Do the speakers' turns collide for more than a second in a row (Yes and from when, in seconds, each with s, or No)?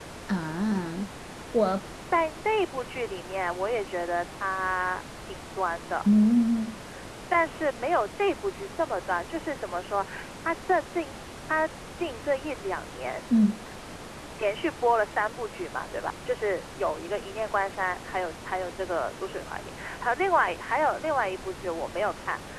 No